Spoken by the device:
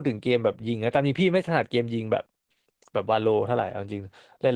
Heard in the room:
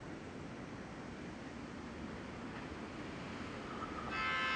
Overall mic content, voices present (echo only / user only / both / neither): neither